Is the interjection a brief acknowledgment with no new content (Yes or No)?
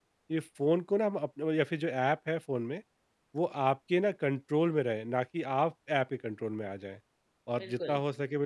Yes